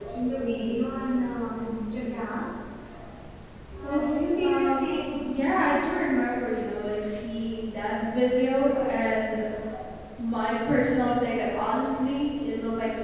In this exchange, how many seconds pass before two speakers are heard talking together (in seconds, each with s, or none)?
3.8 s